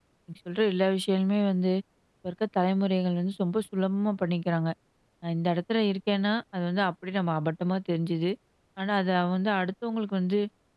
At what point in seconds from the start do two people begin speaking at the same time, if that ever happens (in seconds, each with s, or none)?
none